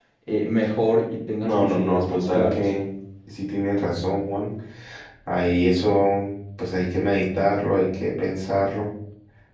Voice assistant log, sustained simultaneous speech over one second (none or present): present